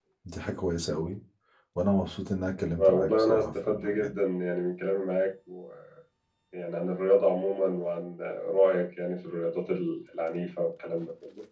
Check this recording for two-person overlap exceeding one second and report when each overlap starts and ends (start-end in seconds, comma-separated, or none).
2.8-4.1